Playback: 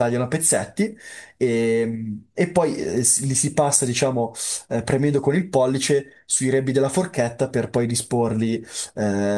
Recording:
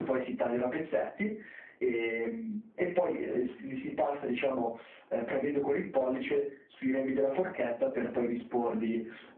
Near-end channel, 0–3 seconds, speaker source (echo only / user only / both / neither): echo only